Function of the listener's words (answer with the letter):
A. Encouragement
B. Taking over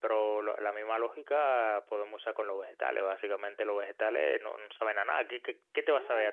B